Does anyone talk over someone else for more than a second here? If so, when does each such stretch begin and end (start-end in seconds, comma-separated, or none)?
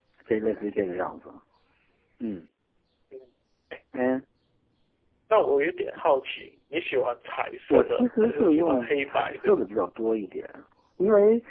7.7-9.7